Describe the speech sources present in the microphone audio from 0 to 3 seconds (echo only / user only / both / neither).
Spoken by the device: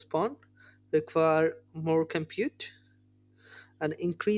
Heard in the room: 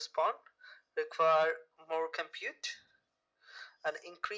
echo only